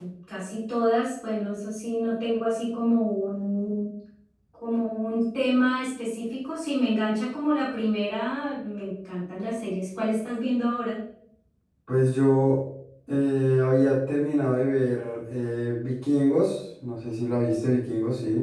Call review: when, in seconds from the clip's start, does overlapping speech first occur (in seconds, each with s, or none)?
none